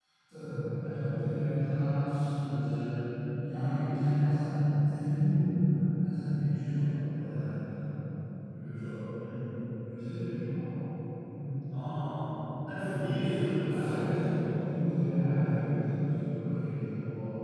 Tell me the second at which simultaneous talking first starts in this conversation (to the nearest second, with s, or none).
13 s